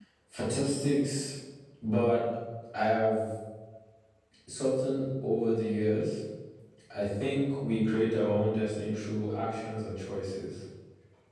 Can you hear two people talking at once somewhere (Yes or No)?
No